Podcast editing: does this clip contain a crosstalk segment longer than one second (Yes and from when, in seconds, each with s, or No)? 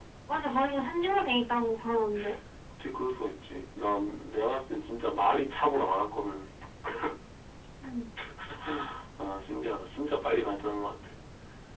No